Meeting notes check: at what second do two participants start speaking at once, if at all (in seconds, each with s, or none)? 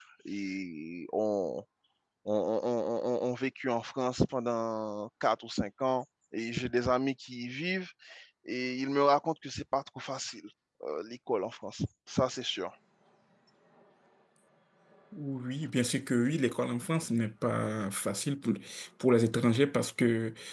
none